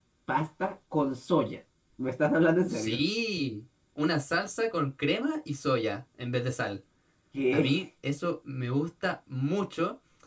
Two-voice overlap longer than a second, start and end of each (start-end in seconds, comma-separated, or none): none